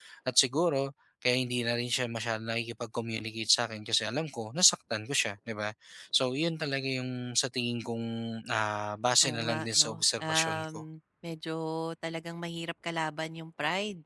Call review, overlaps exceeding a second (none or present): present